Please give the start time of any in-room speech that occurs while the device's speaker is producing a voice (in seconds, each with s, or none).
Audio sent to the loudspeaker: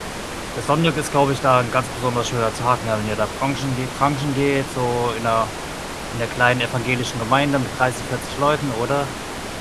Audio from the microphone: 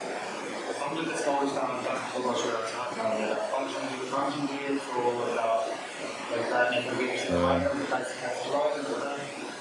7.3 s